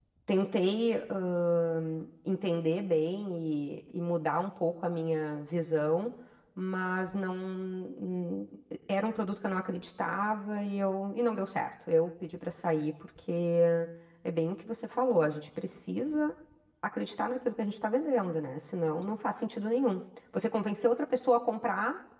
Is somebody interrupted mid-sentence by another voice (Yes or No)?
No